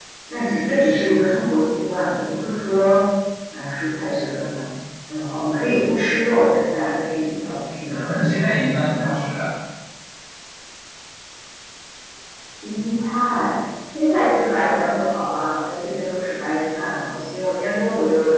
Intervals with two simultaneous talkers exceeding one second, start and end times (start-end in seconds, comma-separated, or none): 7.8-9.1